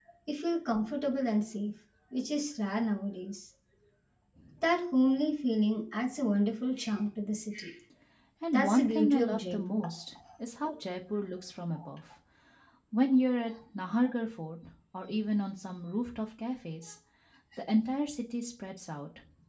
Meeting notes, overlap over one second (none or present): present